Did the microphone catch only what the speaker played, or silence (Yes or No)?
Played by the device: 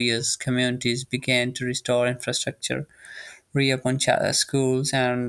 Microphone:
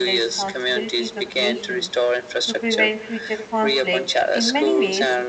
No